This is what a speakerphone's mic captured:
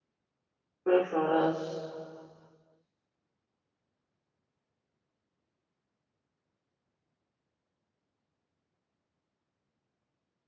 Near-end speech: present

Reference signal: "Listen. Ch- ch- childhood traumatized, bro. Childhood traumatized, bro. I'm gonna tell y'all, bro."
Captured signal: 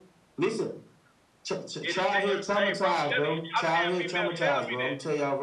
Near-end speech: present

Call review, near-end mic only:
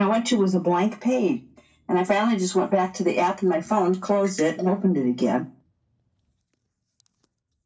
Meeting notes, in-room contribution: none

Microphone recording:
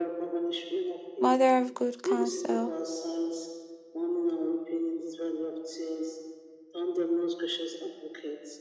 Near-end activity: present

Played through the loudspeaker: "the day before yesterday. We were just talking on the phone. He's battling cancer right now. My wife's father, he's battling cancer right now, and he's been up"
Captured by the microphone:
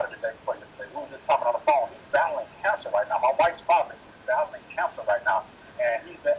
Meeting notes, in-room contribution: none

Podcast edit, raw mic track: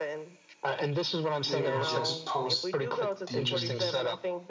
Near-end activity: present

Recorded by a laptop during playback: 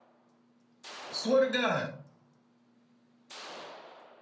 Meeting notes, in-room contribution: present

